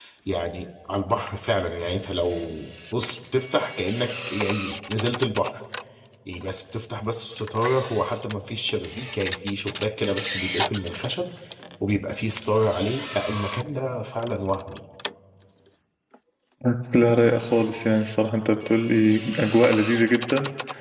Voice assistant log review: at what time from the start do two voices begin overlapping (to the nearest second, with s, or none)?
none